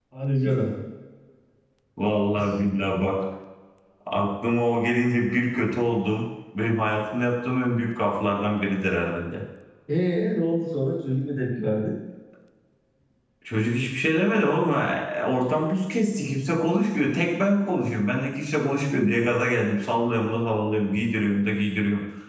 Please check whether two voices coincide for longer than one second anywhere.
No

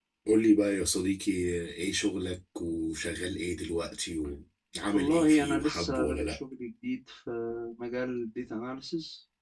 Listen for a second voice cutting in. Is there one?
Yes, from 4.9 s

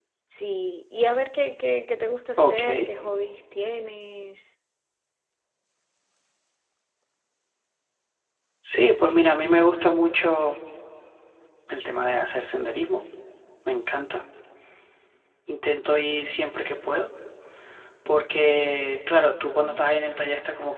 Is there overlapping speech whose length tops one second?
No

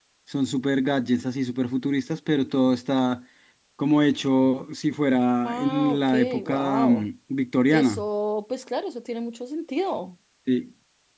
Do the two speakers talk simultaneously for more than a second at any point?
Yes, from 5.4 s

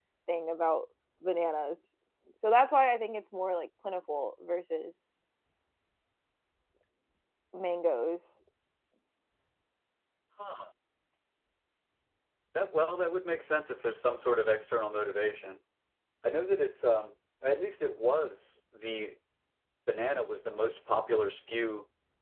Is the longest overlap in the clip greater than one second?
No

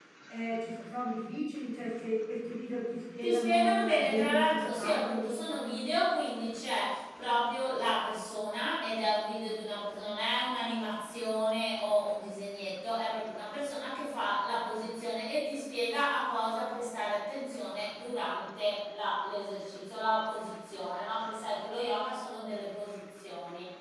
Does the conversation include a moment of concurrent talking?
Yes, from 3.2 s

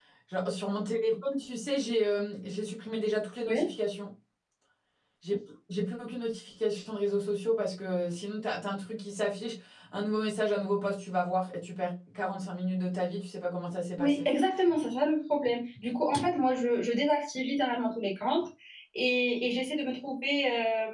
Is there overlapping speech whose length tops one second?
No

